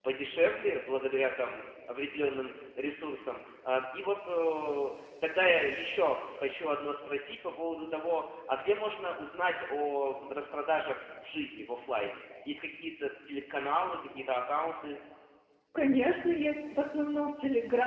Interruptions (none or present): none